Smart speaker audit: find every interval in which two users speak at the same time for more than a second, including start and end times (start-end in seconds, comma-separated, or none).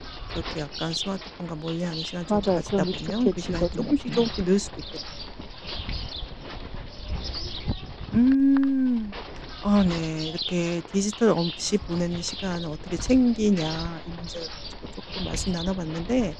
2.3-4.3